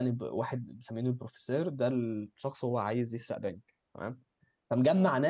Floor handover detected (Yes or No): No